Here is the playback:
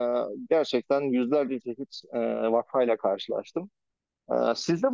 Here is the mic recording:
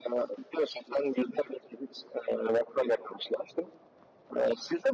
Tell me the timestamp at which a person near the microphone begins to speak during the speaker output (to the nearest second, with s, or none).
none